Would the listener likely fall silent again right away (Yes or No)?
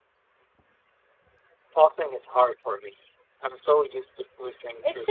No